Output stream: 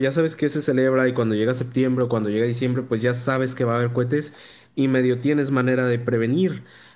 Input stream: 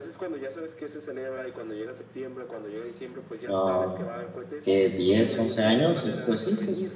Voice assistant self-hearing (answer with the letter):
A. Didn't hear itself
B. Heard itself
B